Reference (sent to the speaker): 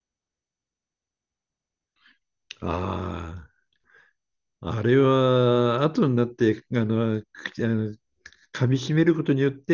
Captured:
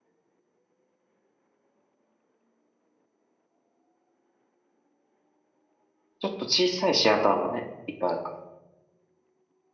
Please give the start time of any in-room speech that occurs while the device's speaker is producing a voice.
6.2 s

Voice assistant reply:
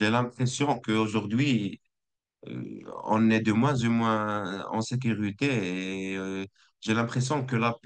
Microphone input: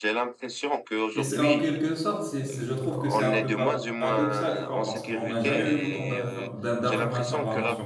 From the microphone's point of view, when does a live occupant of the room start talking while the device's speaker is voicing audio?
1.1 s

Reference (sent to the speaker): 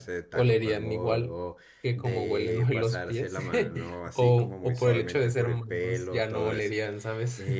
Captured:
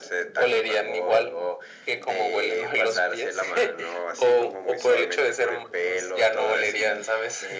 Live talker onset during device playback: none

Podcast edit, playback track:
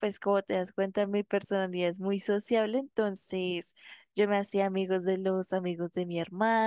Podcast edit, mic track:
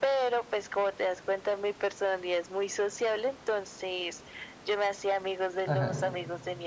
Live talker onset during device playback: 5.6 s

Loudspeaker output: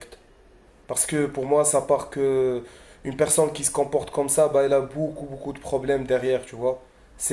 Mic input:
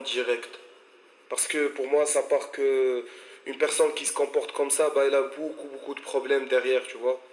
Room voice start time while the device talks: none

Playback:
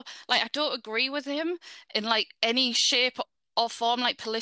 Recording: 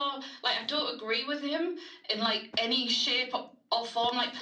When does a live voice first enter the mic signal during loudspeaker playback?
none

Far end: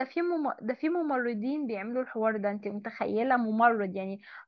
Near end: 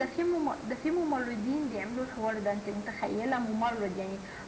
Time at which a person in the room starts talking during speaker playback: none

